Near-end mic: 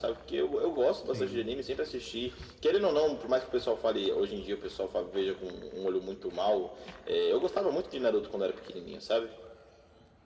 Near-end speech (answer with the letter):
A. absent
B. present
B